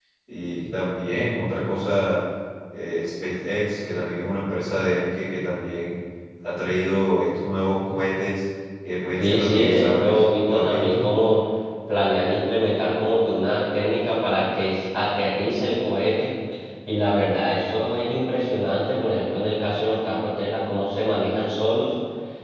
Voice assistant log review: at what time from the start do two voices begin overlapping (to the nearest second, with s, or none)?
9 s